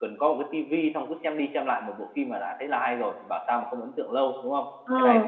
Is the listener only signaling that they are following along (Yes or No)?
No